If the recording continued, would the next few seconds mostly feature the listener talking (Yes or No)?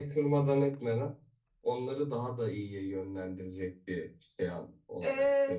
Yes